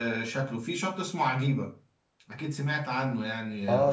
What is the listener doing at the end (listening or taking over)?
taking over